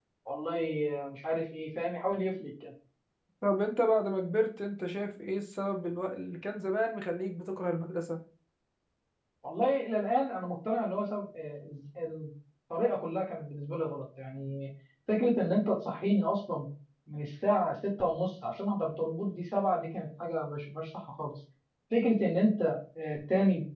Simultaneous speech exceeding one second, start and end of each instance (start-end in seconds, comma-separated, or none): none